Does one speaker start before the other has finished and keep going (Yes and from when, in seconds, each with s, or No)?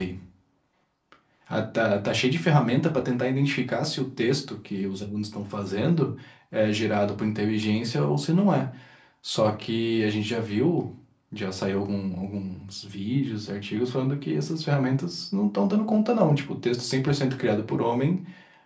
No